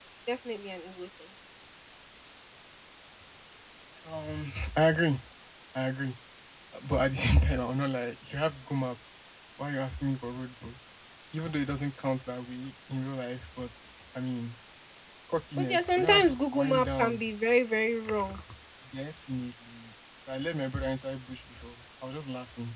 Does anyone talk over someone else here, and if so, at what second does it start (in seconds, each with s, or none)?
15.6 s